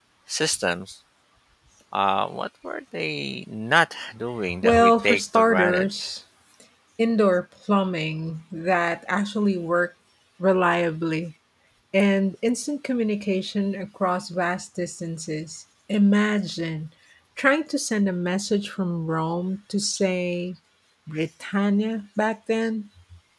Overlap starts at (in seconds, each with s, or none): 4.5 s